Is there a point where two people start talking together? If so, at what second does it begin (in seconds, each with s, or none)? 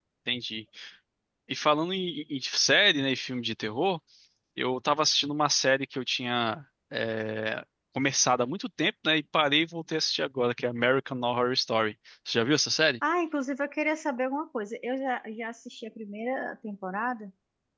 none